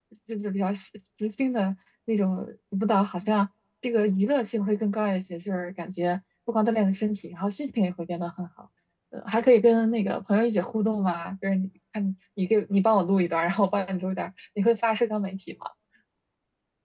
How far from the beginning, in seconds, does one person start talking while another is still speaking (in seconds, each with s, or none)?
none